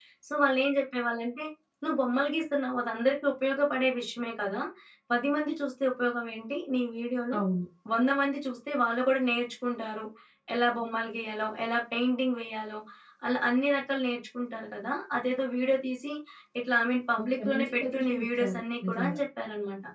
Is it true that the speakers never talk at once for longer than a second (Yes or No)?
No